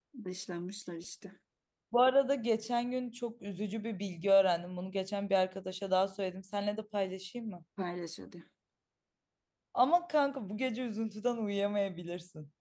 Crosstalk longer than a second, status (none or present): none